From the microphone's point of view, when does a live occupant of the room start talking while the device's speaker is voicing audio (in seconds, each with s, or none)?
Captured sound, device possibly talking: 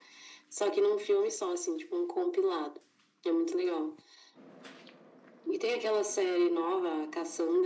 none